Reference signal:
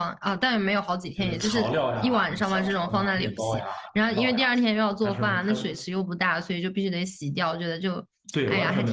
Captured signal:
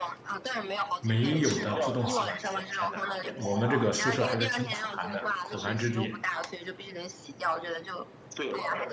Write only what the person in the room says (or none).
没有的自动洗碗机，天哪，我们这个宿舍还是挺苦寒的，苦寒之地。